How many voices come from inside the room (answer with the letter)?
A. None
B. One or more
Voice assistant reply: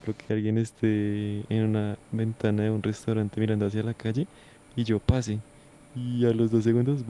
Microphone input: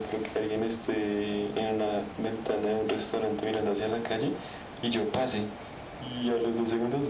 A